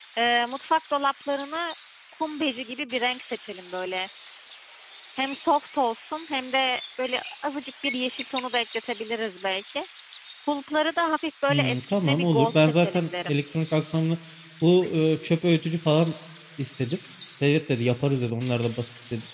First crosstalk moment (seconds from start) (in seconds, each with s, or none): 11.5 s